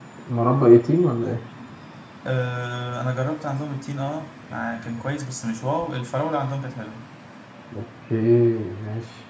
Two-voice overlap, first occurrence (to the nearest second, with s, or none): none